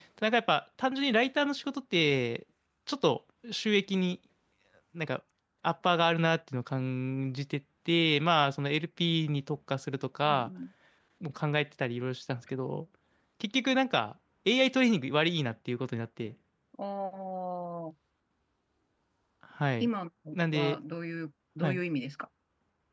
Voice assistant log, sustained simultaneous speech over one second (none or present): none